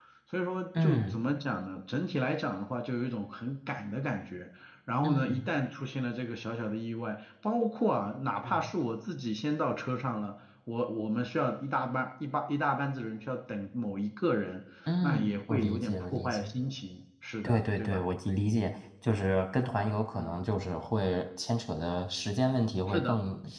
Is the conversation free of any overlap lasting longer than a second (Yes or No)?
No